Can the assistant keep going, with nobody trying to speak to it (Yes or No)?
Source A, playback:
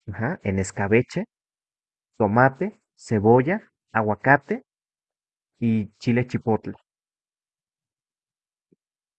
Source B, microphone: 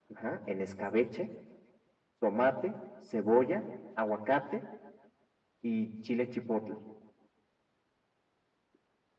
Yes